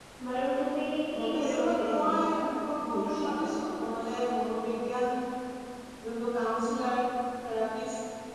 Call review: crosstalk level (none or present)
present